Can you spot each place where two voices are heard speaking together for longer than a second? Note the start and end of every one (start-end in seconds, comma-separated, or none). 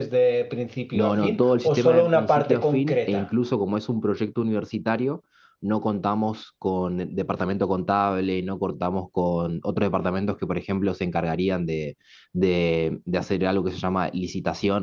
0.9-3.2